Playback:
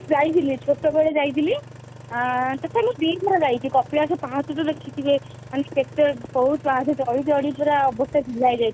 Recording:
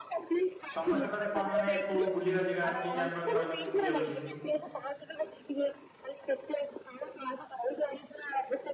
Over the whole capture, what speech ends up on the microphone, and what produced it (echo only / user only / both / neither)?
both